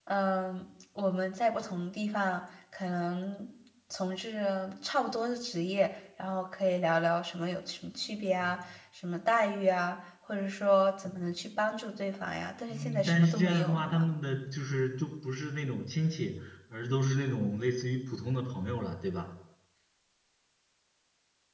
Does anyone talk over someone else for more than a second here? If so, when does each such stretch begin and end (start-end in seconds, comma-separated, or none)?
12.7-14.0